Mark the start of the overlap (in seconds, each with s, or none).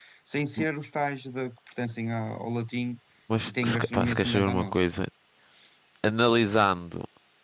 3.4 s